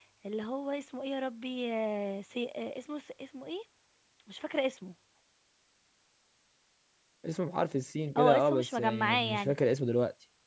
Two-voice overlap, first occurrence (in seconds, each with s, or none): 8.2 s